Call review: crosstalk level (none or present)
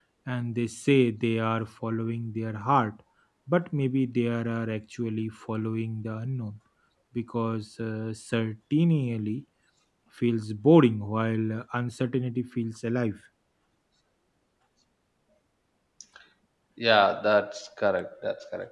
none